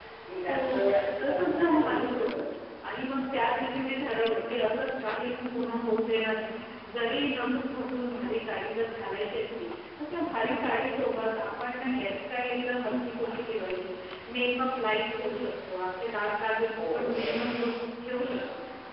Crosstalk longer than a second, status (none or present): present